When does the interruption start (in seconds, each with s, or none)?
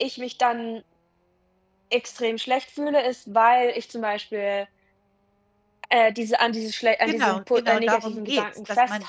7.0 s